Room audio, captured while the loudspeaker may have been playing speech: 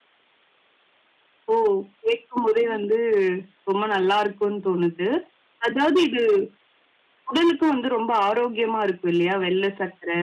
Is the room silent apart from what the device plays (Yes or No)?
Yes